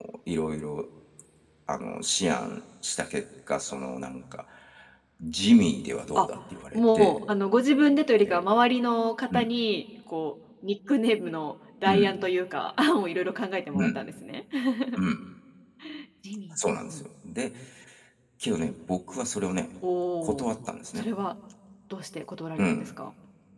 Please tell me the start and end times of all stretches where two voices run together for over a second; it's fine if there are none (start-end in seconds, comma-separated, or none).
none